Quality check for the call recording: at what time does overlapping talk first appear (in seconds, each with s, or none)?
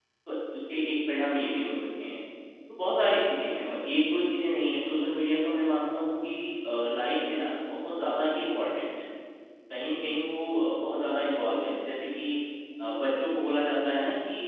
none